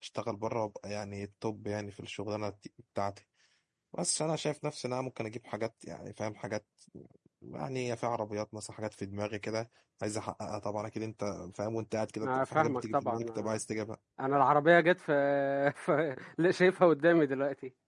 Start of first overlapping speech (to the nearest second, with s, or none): 12 s